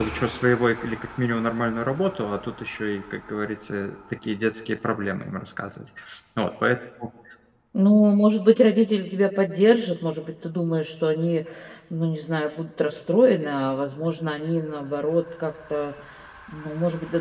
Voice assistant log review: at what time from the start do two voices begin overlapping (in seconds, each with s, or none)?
none